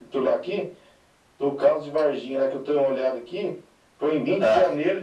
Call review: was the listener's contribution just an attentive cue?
Yes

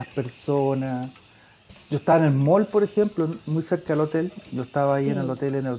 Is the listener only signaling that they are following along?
Yes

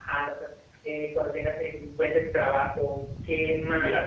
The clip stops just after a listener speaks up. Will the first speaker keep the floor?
Yes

